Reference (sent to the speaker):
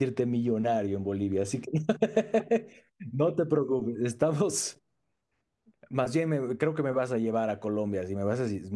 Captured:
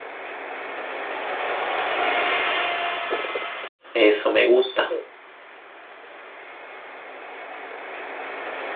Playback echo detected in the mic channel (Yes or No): No